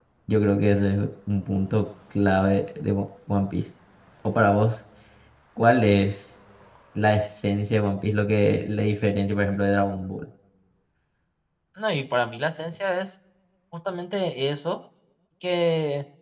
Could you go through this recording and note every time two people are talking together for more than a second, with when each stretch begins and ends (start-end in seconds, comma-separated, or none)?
none